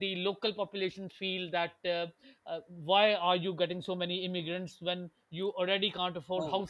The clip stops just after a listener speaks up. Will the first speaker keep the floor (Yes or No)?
Yes